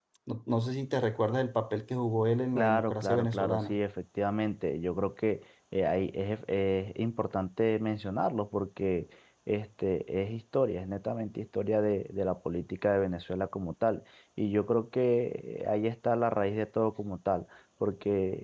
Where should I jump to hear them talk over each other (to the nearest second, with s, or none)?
3 s